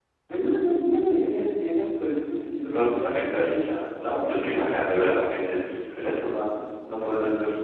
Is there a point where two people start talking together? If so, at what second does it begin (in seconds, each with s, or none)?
2.6 s